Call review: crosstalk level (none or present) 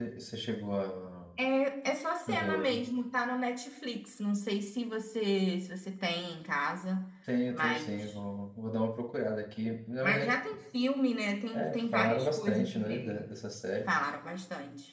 present